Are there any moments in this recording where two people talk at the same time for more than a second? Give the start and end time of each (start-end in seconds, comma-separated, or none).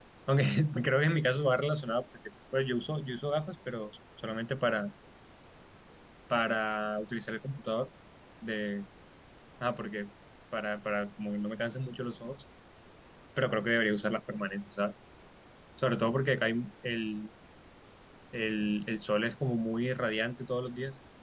none